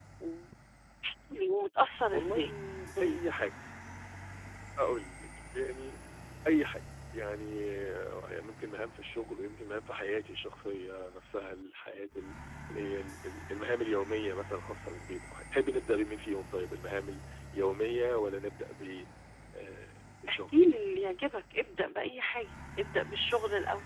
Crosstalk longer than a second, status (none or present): none